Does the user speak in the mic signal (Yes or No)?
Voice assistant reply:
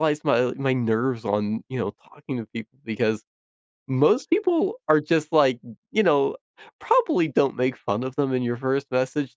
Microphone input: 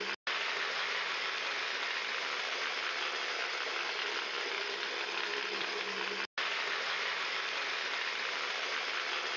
No